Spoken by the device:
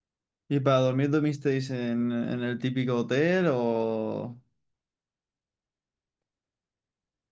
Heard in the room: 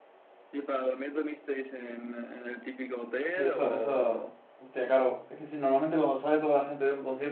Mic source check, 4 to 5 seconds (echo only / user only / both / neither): both